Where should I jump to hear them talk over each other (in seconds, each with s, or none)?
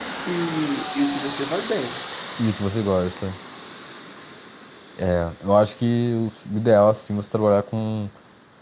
none